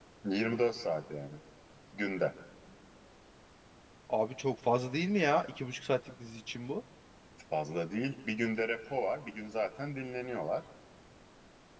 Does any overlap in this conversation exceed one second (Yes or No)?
No